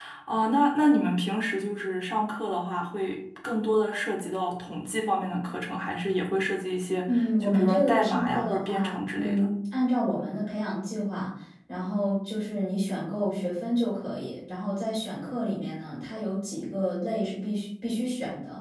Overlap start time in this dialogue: 7.1 s

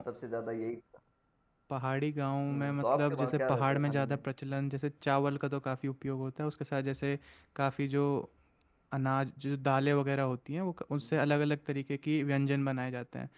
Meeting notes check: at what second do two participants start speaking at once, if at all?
2.5 s

